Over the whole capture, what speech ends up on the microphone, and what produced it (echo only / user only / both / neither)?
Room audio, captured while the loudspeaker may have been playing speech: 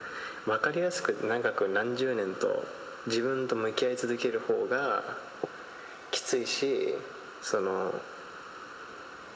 echo only